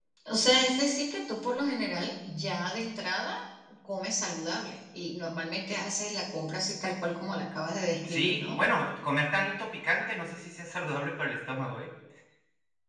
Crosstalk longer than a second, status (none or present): none